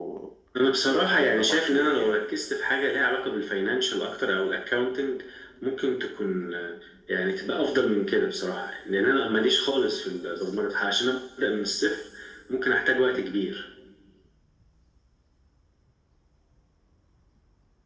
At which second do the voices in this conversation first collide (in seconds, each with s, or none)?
0.9 s